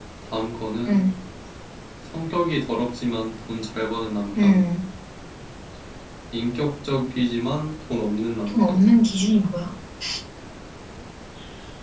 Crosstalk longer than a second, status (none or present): none